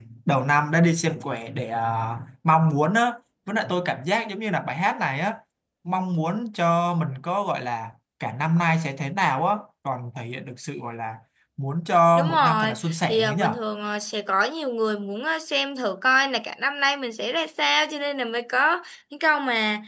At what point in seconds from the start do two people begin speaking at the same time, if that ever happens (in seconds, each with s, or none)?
12.2 s